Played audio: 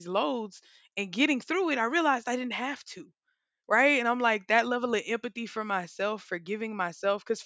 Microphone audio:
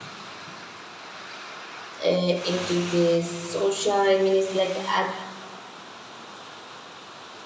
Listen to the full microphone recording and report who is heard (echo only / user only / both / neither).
user only